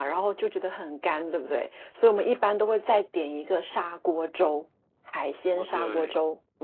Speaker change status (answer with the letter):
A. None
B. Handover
B